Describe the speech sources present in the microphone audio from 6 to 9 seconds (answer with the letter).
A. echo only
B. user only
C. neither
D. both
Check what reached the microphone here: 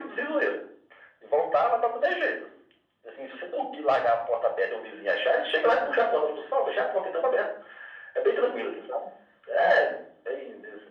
A